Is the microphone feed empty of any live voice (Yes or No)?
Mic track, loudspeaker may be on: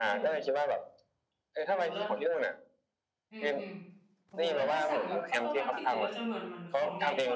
No